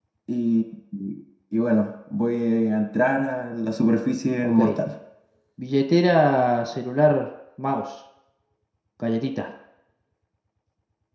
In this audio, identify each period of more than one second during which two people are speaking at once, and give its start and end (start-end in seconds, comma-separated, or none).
none